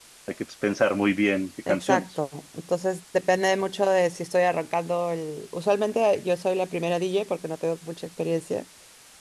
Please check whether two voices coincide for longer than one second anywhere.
No

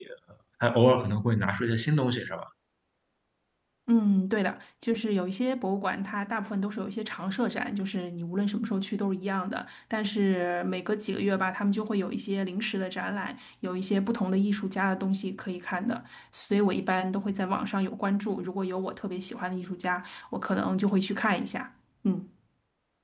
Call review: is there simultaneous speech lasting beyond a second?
No

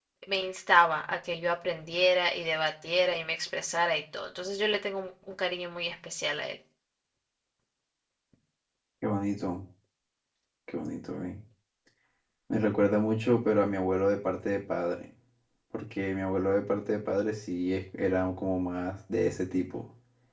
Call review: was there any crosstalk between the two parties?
No

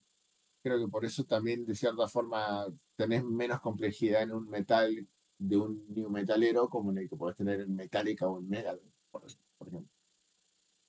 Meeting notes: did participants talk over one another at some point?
No

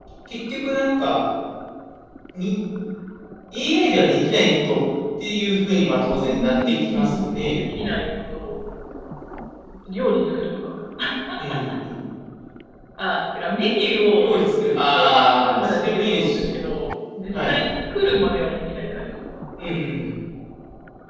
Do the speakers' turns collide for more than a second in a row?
Yes, from 6.2 s

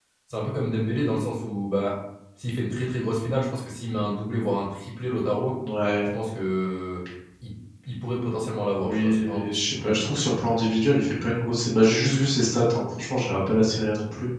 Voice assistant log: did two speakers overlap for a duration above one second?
Yes, from 8.8 s

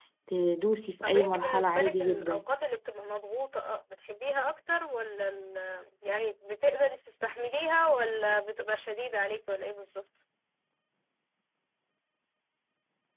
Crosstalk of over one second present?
Yes, from 1.0 s

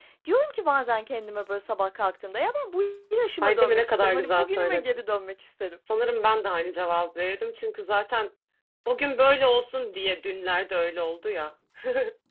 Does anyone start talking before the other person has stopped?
Yes, from 3.4 s

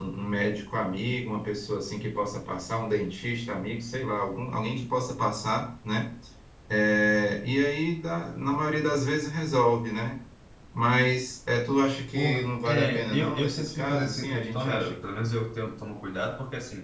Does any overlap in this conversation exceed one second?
Yes, from 12.2 s

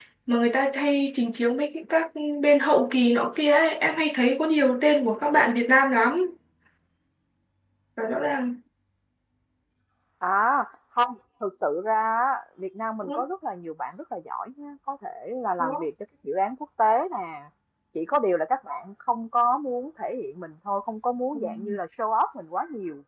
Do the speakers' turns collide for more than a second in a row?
No

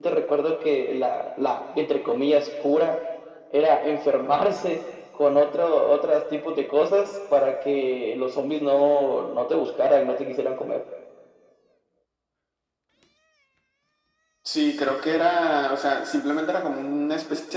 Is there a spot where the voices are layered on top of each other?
No

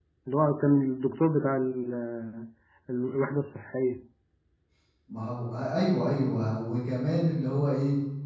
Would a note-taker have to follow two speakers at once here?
No

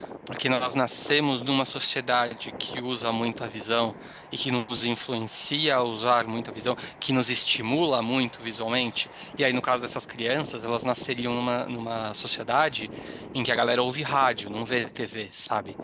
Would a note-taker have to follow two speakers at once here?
No

